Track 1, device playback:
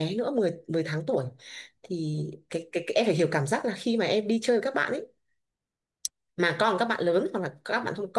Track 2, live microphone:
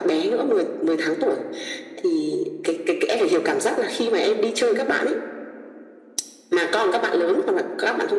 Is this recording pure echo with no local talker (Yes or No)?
Yes